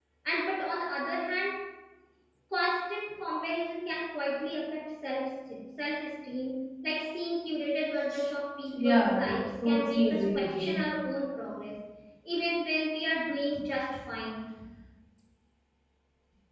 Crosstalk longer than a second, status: present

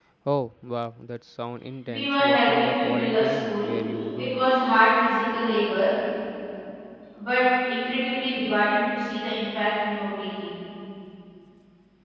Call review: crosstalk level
present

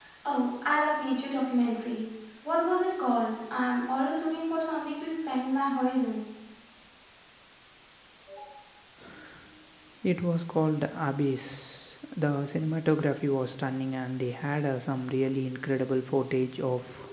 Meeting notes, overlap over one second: none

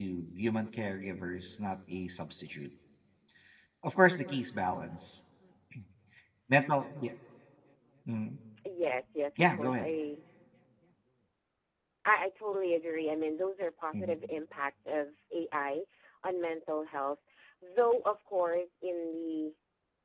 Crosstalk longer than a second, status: none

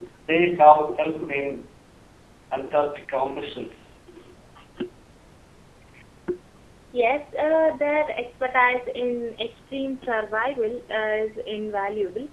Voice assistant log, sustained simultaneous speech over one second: none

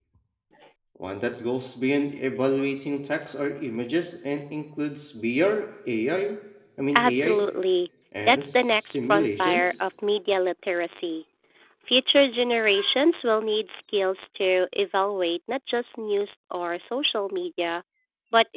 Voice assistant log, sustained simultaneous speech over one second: present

